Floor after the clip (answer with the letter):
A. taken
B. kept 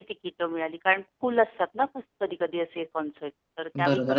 A